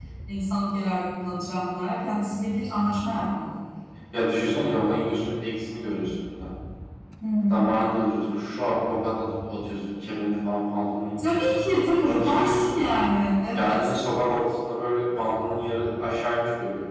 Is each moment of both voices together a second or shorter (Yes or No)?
No